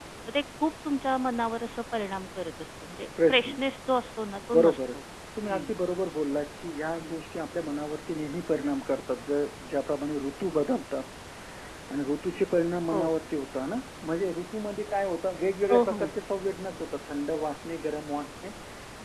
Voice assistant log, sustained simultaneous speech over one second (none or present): none